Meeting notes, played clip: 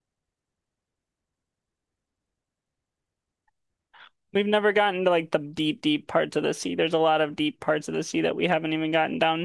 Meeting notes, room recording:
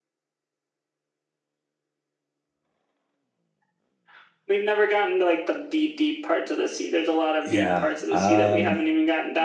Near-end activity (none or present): present